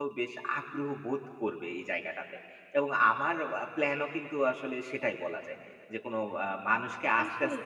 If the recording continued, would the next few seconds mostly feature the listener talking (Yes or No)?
Yes